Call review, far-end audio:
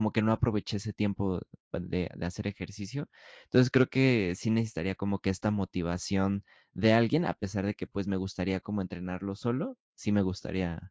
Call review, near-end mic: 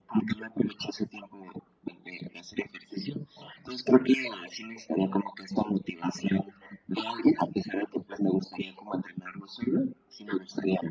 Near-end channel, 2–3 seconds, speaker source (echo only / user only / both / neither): echo only